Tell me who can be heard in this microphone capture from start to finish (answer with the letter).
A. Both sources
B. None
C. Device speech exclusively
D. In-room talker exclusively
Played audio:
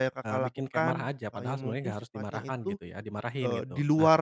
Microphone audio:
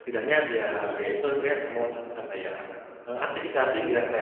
D